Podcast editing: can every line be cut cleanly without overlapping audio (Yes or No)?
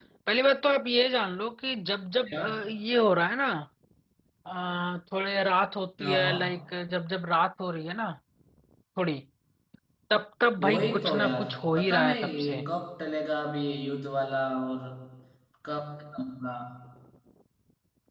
No